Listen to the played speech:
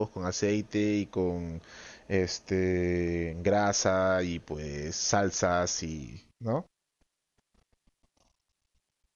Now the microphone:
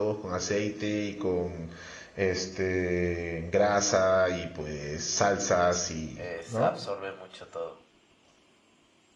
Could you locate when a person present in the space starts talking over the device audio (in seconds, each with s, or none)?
6.1 s